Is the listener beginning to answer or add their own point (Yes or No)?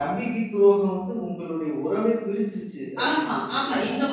Yes